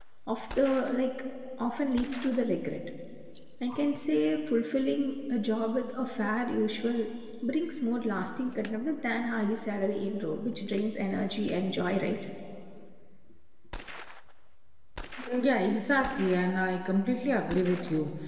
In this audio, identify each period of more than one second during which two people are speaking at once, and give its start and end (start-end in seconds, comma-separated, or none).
none